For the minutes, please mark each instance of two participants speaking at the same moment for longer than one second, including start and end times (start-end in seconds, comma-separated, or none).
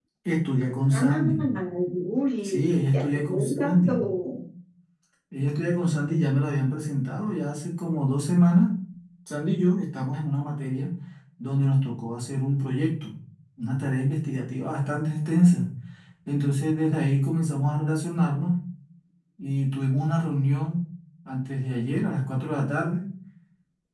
2.4-4.0